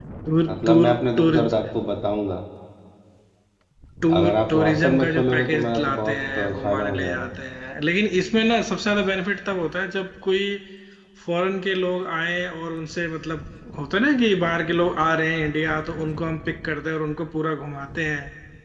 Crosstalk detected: Yes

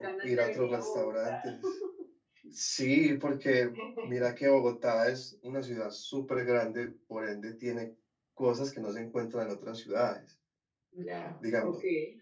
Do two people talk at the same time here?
Yes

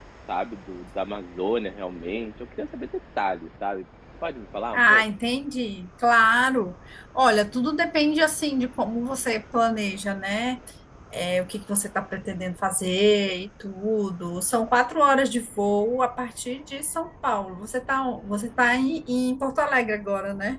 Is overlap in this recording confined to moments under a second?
Yes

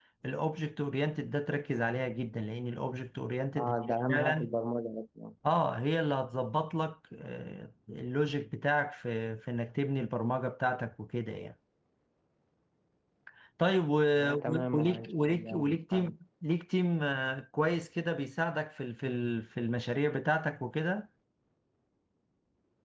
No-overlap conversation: No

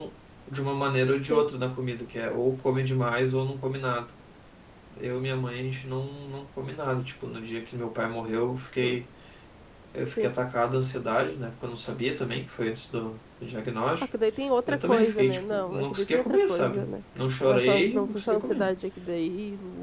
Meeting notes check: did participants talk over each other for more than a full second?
Yes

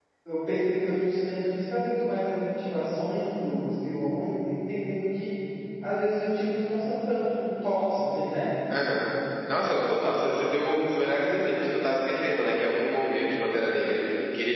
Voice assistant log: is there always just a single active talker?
Yes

